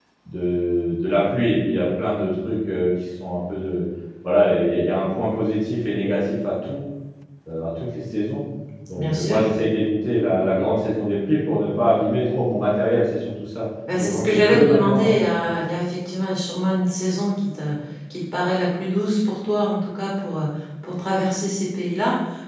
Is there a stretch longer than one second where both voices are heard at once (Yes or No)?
Yes